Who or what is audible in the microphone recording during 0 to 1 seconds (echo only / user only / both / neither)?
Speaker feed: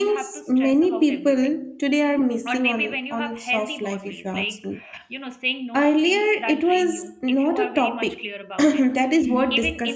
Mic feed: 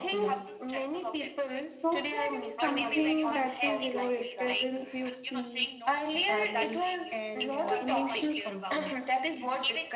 both